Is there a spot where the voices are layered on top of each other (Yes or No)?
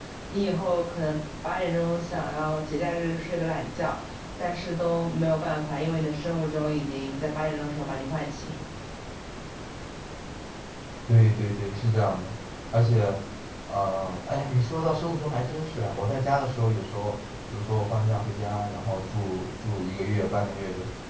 No